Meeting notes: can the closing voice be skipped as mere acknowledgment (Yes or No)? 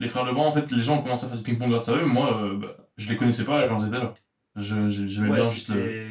No